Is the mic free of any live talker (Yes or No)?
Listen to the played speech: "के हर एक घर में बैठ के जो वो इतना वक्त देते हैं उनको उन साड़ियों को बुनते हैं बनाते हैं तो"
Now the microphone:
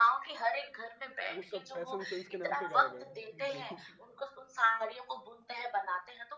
No